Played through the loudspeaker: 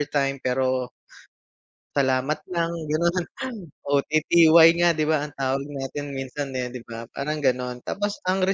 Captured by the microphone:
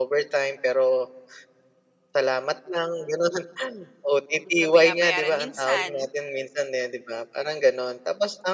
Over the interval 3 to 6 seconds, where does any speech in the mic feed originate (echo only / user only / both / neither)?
both